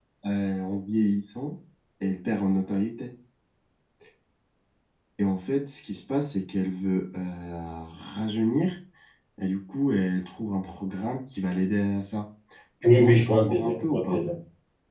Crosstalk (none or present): present